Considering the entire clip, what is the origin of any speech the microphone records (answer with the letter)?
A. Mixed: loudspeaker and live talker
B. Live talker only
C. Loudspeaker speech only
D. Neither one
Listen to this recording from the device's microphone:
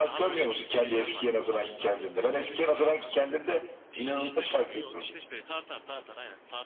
A